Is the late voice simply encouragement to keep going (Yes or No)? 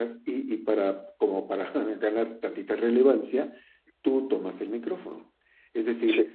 Yes